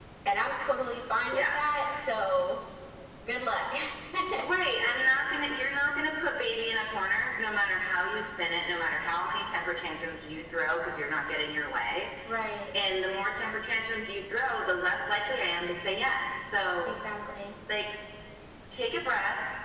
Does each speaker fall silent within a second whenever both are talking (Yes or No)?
Yes